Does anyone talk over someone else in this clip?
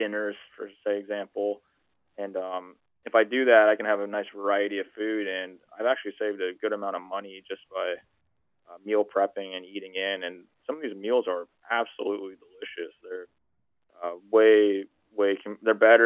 No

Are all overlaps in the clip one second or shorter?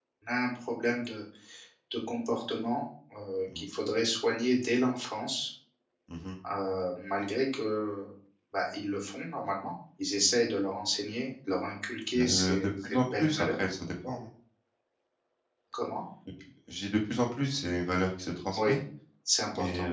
No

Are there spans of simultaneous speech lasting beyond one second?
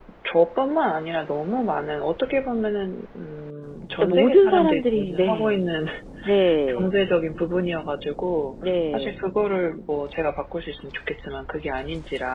Yes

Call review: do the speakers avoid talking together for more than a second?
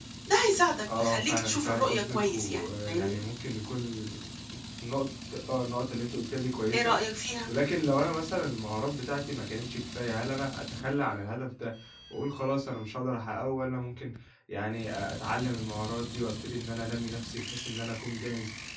No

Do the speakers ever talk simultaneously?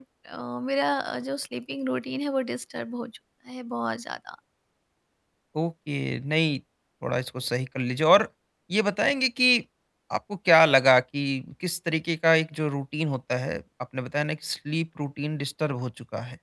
No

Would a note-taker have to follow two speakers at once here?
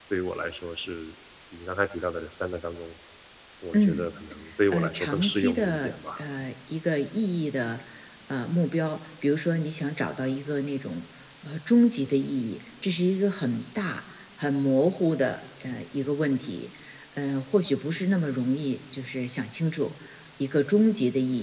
Yes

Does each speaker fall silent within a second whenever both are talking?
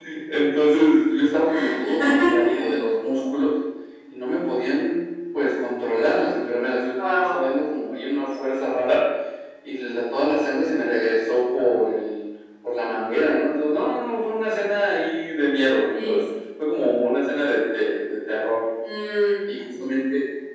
Yes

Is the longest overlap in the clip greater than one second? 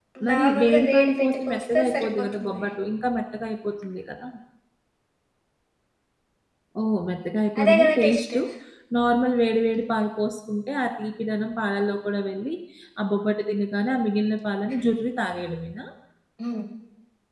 Yes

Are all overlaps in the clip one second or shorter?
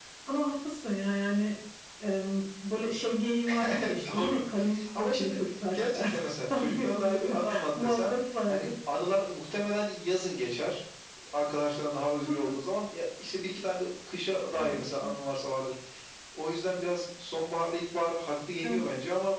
No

